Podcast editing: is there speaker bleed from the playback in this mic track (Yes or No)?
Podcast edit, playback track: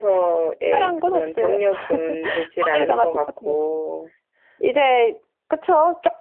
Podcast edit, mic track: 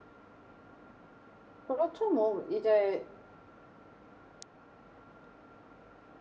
No